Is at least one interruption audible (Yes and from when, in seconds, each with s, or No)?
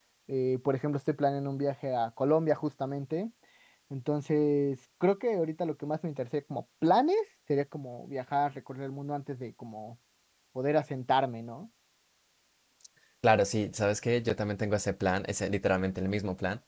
No